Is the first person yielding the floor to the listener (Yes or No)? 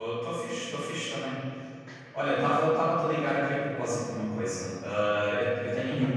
No